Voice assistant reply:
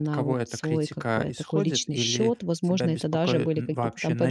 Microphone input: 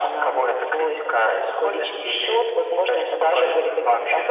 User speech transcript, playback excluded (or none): none